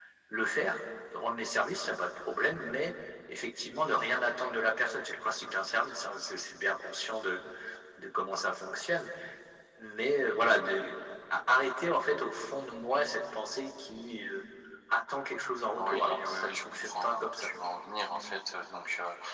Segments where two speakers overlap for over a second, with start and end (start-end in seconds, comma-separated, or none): 15.8-17.5